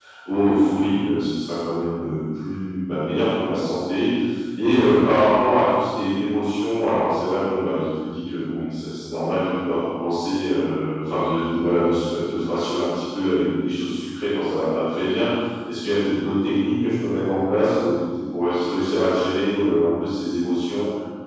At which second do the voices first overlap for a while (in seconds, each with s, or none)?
none